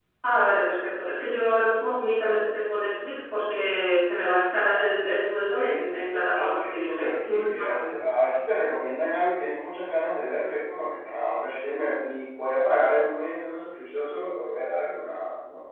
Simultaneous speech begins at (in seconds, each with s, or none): 5.6 s